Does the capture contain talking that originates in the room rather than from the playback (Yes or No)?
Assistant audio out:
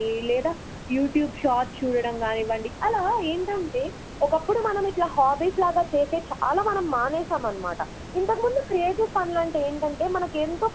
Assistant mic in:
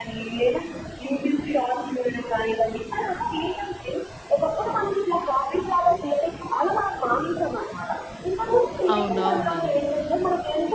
Yes